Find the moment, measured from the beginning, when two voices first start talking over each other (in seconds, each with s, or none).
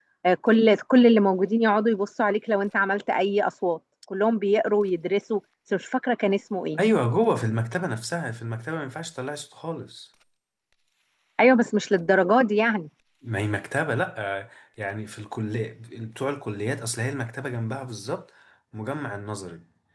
none